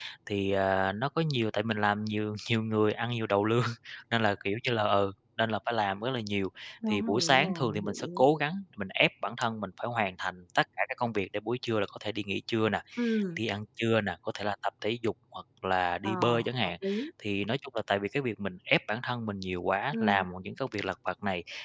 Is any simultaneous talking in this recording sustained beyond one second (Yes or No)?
Yes